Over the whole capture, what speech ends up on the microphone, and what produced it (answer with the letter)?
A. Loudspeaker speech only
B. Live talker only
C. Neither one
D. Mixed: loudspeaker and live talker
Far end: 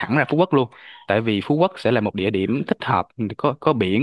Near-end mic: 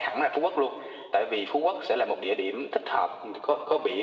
A